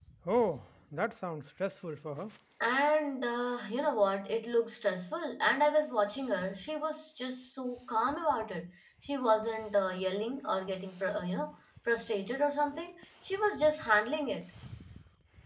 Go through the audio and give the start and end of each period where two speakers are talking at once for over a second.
none

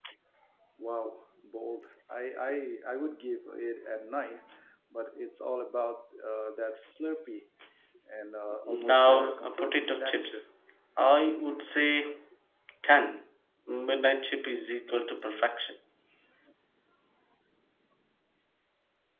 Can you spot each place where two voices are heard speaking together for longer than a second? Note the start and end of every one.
8.6-10.4

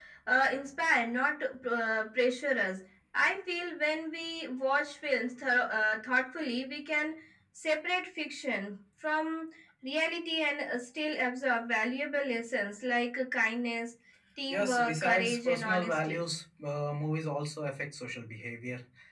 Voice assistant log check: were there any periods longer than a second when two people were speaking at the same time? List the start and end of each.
14.5-16.2

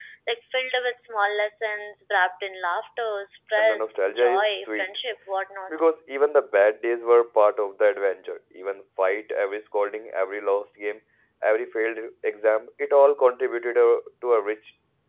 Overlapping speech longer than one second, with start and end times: 3.6-4.9

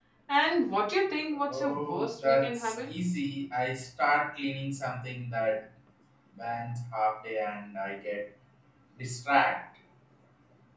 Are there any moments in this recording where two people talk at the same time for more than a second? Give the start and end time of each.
1.5-2.9

